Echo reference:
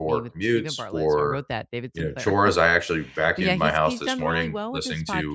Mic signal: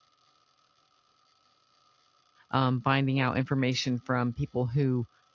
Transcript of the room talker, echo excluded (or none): um, finding out information from people who